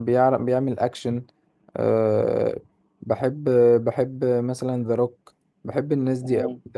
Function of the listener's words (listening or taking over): taking over